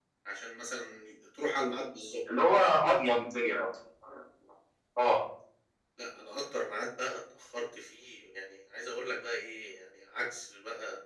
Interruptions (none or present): none